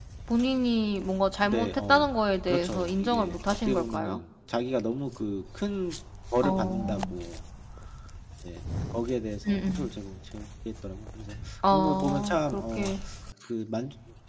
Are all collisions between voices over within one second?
No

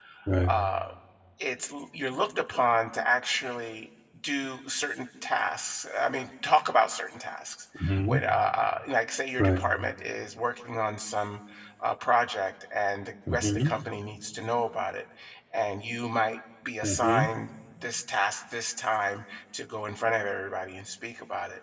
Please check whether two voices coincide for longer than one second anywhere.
No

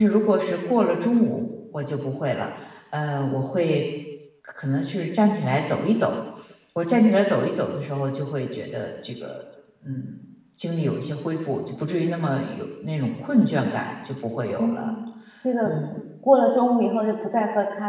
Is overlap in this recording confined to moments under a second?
Yes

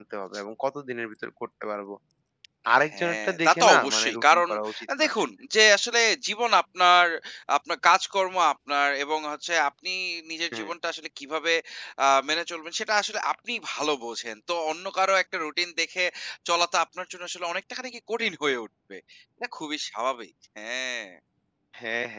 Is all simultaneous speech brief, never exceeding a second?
No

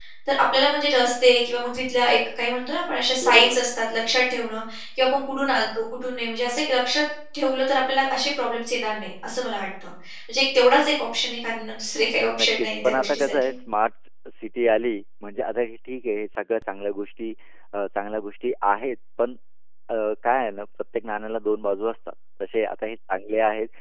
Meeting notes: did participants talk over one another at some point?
Yes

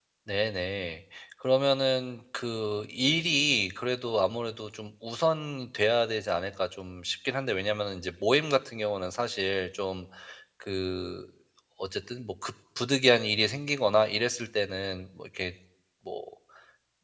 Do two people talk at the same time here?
No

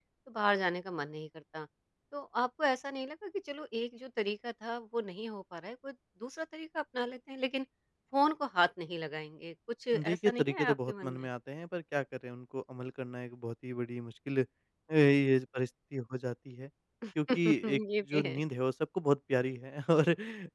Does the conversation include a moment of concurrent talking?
Yes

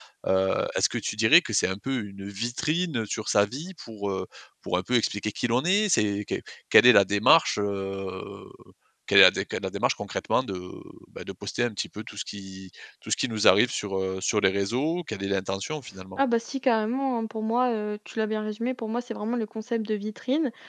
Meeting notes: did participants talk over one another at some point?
No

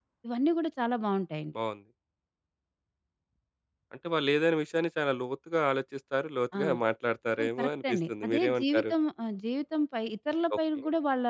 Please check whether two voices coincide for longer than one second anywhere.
Yes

